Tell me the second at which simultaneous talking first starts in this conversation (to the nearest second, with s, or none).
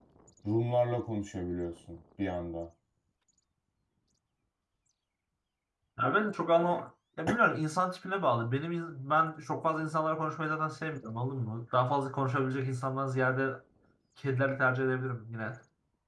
none